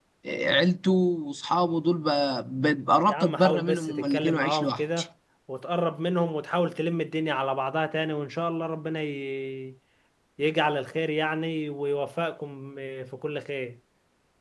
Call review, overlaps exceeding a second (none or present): present